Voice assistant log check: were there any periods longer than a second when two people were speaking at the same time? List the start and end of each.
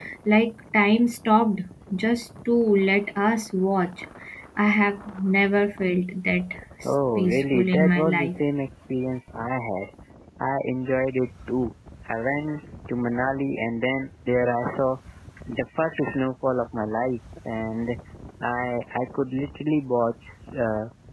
7.2-8.4

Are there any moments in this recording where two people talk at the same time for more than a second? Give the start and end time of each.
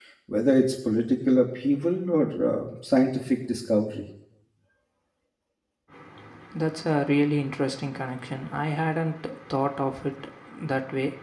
none

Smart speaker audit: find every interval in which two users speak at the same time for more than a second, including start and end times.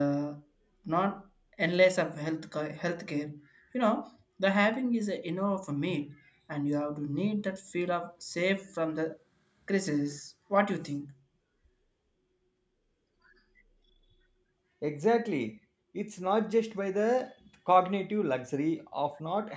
none

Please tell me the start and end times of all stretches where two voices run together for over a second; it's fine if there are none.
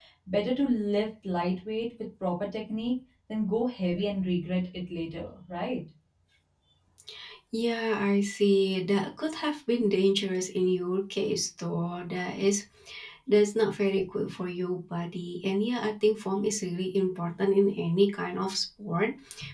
none

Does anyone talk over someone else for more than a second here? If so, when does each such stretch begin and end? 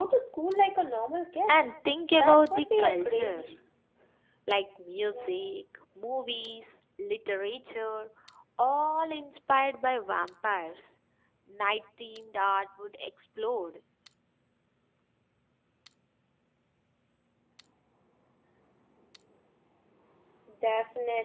2.2-3.5

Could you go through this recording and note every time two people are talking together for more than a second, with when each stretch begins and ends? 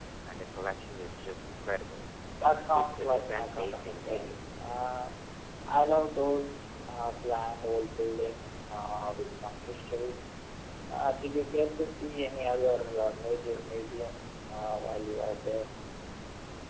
2.7-4.3

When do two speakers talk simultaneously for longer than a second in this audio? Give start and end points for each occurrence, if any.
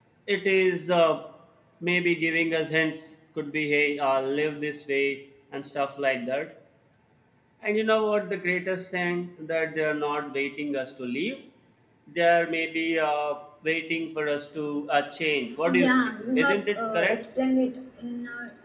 15.6-17.2

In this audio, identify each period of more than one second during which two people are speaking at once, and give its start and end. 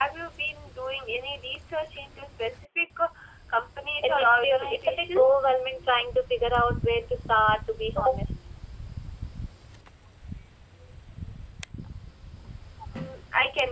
4.0-5.5

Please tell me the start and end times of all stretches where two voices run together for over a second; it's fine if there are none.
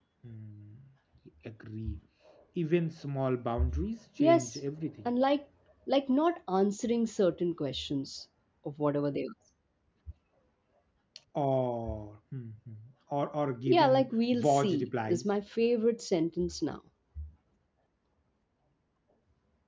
13.7-15.3

